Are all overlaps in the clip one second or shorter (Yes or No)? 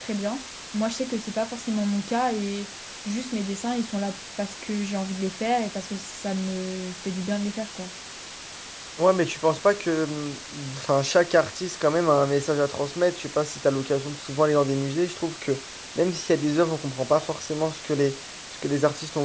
Yes